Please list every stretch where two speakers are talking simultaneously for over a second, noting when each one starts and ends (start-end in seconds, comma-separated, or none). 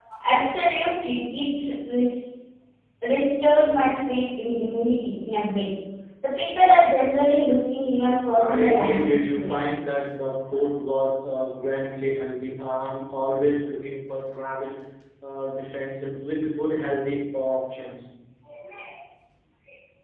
8.3-9.8